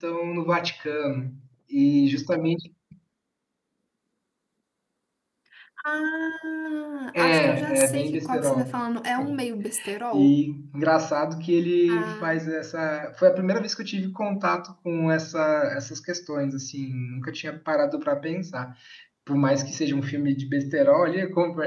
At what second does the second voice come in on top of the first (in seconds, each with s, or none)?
7.2 s